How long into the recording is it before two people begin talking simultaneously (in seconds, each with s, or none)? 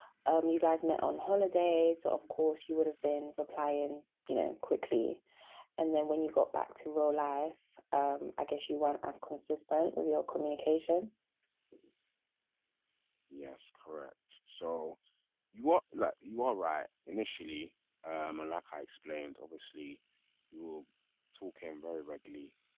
none